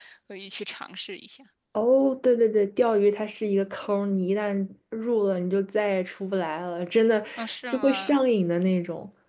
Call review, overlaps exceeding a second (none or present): none